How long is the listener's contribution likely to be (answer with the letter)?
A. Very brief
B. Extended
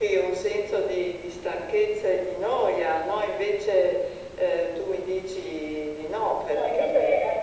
B